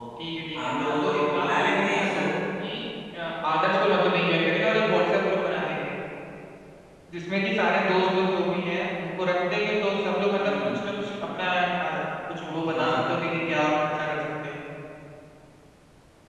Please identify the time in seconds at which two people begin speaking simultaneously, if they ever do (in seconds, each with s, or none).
0.6 s